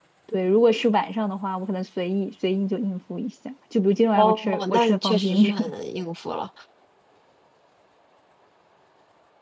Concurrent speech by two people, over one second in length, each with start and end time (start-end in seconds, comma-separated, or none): 4.1-5.5